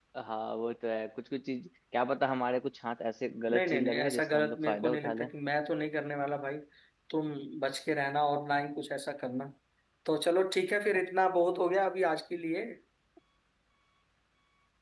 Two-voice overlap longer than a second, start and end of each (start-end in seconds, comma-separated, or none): 3.5-5.3